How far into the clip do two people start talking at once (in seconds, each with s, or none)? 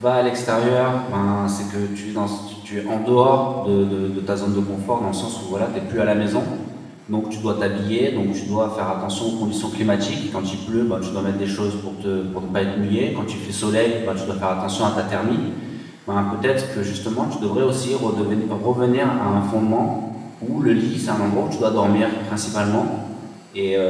none